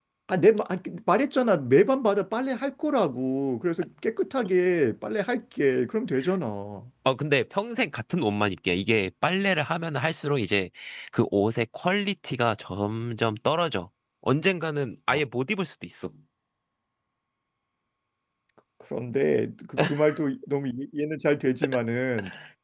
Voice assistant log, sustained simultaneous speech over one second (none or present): none